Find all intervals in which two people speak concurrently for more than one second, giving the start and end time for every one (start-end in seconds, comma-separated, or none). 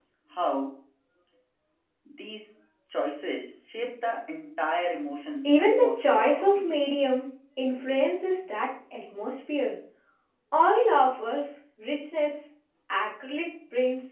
5.4-6.8